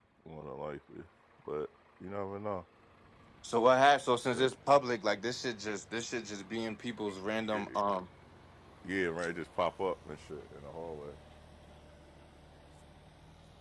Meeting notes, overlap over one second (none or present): none